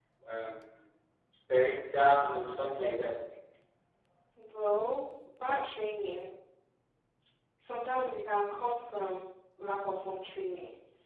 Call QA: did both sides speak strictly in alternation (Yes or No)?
Yes